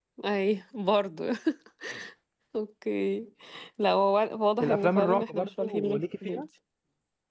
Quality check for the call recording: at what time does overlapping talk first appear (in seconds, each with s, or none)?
4.6 s